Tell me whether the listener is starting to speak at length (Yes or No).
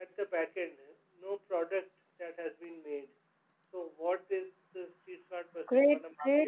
Yes